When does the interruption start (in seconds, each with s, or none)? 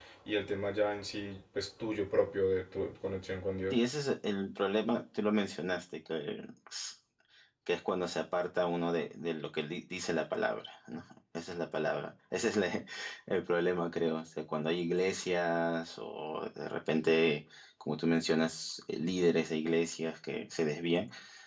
none